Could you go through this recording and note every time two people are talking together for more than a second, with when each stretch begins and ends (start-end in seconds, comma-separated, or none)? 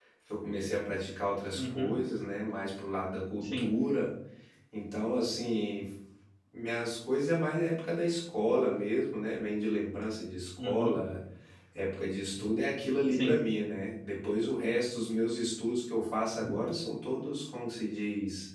none